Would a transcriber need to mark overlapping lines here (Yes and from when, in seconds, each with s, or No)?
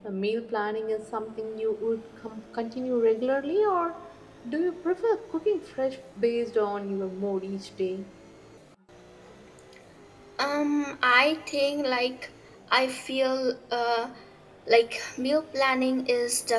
No